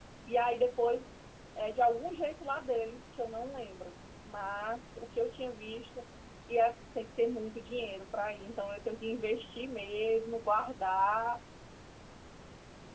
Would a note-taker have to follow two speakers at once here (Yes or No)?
No